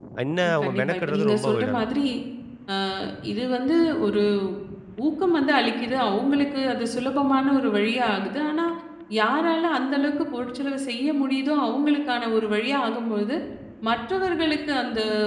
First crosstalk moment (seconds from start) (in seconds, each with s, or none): 0.6 s